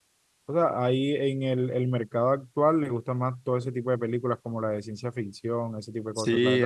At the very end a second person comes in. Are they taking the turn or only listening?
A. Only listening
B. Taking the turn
B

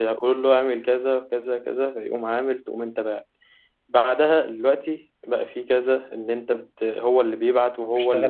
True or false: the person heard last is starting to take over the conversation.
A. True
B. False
B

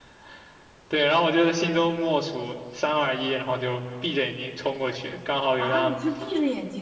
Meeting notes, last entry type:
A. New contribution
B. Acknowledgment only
A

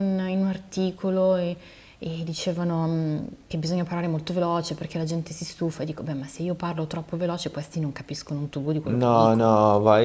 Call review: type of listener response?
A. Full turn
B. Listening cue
A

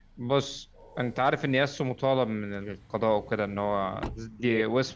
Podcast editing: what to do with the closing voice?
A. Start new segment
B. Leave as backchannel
B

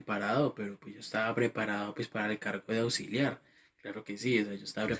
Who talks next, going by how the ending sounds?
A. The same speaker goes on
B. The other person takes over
B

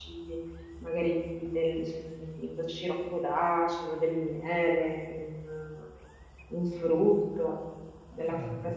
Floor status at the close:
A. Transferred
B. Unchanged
B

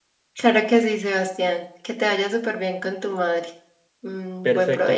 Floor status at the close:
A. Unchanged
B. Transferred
B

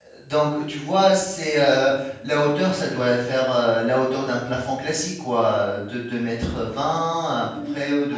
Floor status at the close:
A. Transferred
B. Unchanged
A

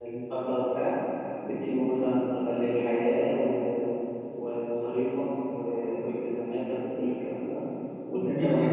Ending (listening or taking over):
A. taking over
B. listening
B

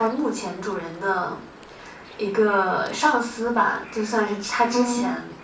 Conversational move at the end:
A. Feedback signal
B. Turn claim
A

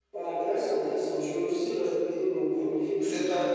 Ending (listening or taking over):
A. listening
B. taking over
B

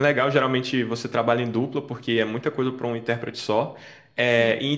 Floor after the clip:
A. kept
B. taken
A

